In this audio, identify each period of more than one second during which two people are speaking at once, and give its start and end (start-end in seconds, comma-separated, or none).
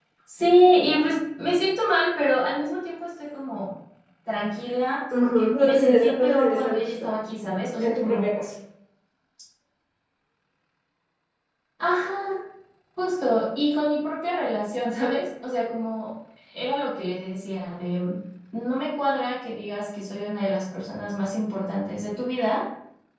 5.2-7.1